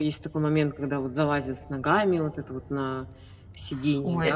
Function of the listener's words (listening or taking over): taking over